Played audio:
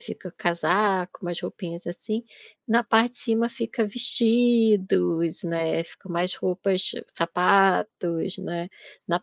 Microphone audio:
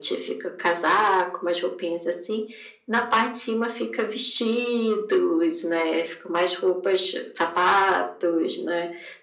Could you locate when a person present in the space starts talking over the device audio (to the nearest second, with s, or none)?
none